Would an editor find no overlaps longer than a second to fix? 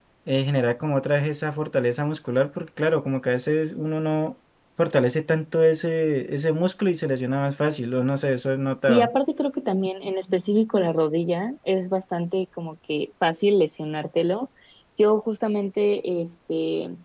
Yes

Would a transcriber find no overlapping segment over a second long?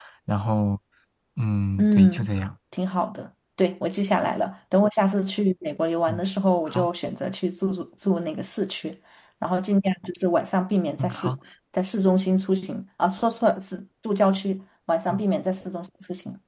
Yes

